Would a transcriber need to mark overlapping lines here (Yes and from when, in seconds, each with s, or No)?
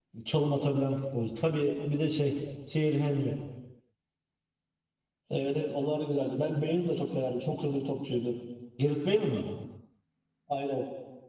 No